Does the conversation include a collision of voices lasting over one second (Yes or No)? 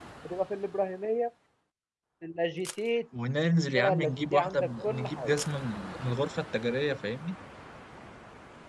Yes